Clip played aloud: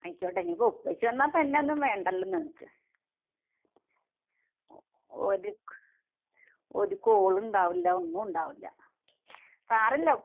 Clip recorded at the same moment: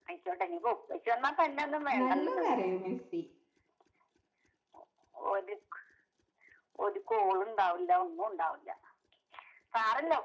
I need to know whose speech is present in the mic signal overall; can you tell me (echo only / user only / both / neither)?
both